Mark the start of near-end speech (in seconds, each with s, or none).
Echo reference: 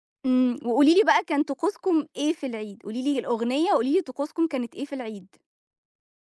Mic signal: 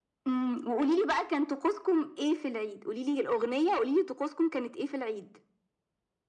none